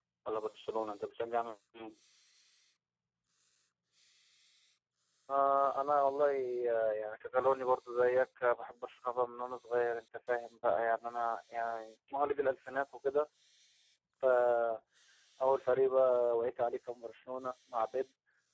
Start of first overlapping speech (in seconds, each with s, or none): none